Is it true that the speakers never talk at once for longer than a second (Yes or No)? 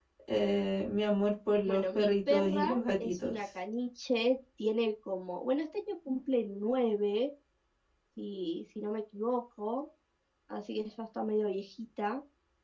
No